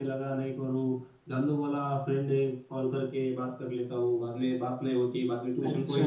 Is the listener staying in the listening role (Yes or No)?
No